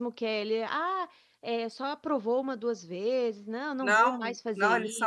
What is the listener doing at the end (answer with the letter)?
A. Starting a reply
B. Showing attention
A